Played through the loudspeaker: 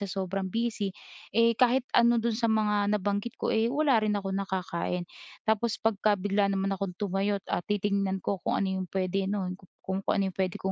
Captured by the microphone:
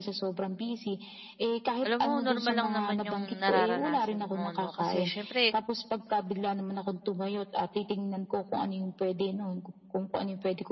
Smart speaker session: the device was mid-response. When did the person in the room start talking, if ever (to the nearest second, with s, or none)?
2 s